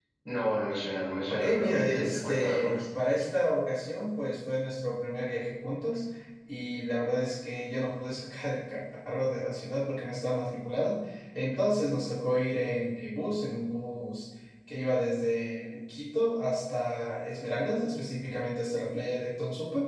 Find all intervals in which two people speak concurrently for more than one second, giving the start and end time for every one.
1.3-2.8

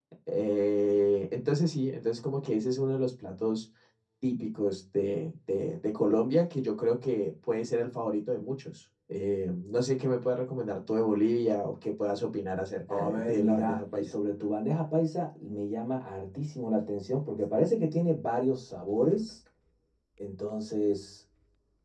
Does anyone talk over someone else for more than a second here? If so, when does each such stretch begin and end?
12.9-14.1

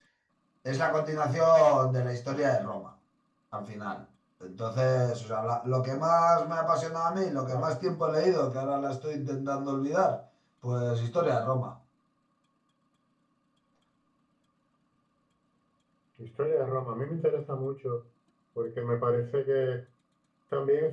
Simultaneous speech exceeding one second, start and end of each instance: none

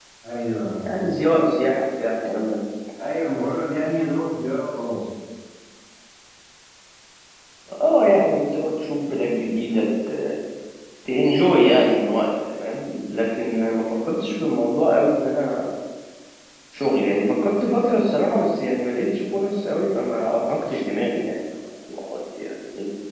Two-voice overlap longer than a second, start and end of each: none

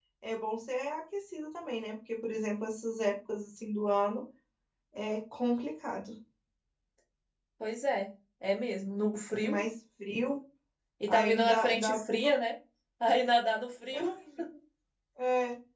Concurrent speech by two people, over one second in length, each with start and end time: 11.1-12.3

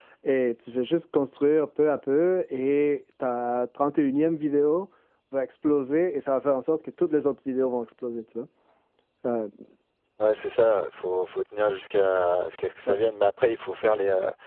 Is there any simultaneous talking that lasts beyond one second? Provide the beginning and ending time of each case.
none

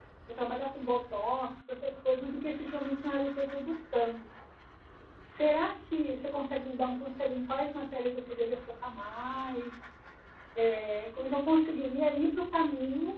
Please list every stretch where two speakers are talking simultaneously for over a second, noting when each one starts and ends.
none

